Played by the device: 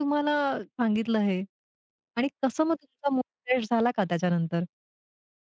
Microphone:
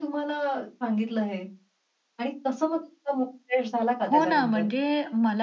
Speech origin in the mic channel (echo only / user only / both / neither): both